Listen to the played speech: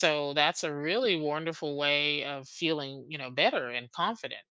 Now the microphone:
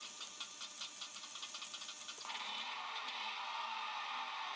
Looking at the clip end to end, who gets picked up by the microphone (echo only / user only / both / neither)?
neither